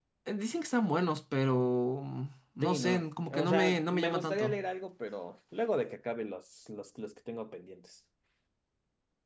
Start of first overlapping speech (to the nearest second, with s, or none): 3 s